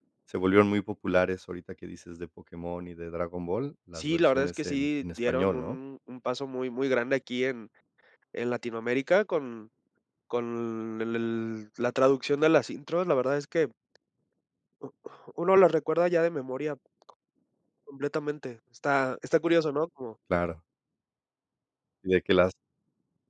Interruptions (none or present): present